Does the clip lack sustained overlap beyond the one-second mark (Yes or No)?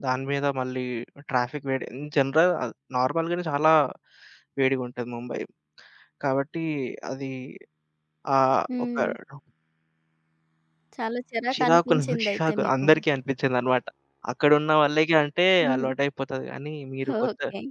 No